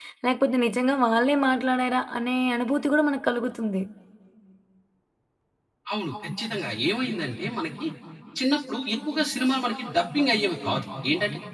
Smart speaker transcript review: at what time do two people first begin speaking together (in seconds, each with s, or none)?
none